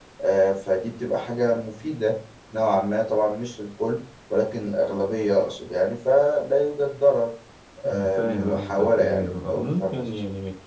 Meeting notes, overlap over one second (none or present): present